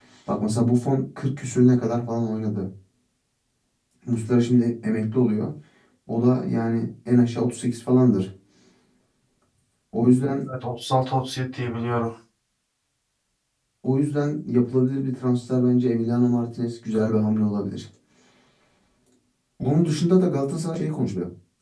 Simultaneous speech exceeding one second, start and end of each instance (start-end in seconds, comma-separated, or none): none